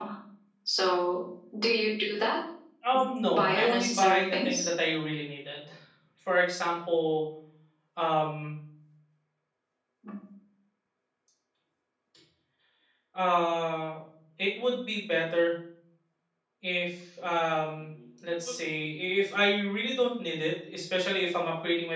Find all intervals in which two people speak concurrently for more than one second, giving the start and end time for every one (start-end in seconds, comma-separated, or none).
3.3-4.7